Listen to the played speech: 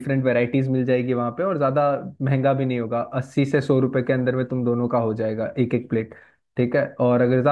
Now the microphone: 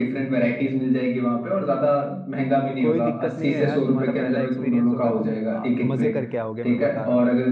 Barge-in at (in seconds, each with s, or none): 2.8 s